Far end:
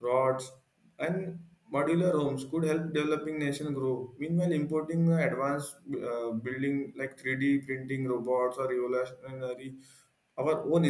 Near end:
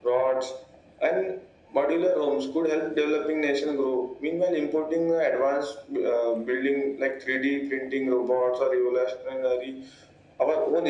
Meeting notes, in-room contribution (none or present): none